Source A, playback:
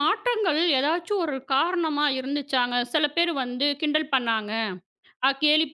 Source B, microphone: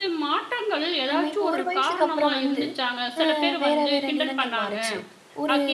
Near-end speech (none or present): present